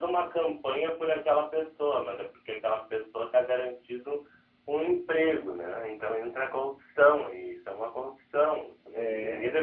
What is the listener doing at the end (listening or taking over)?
listening